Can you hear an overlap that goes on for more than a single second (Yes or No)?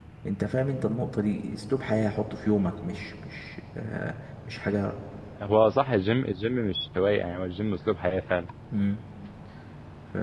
No